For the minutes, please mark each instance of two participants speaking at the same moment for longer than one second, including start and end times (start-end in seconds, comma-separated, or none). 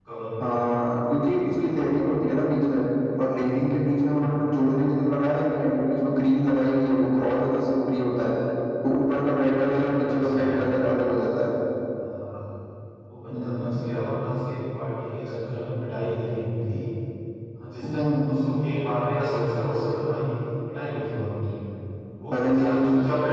9.2-10.6